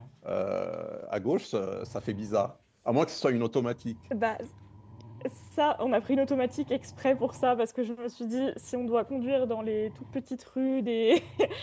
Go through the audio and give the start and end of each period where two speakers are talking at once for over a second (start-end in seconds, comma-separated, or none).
none